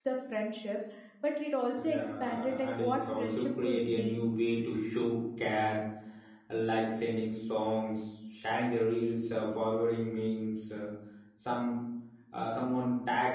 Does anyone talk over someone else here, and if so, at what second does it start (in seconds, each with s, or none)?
1.8 s